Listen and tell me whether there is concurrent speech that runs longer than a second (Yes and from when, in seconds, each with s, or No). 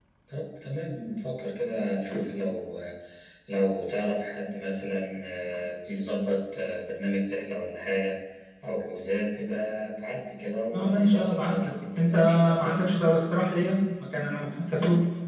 Yes, from 10.7 s